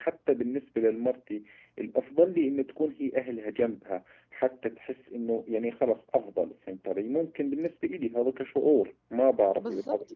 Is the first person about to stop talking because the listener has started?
Yes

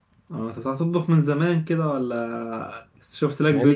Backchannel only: No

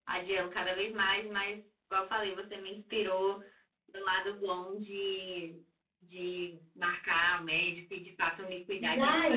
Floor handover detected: Yes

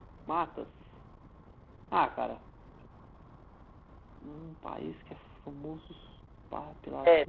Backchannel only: No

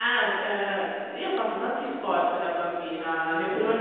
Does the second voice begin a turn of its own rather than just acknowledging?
No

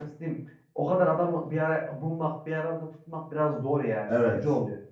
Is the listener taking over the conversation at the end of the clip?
Yes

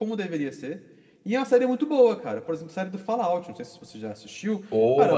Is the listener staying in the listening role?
Yes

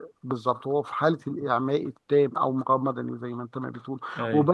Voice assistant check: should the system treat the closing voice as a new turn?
No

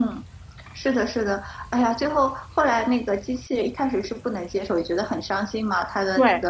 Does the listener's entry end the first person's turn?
No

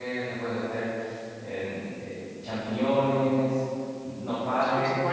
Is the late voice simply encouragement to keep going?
No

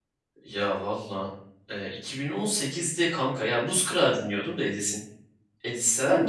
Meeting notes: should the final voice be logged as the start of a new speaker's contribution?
Yes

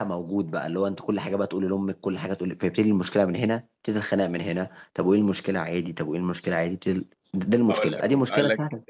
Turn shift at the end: Yes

